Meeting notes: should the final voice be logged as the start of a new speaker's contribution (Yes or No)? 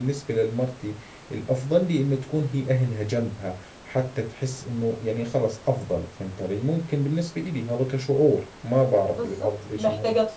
Yes